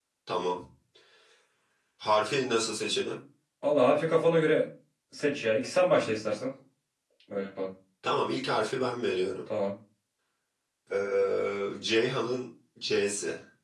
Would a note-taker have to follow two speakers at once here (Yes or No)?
No